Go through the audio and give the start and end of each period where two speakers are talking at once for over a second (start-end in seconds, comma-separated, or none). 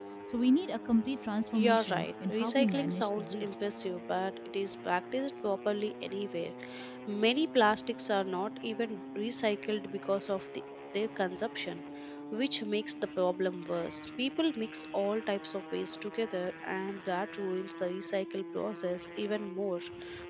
1.5-3.5